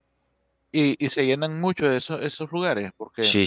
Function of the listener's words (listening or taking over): taking over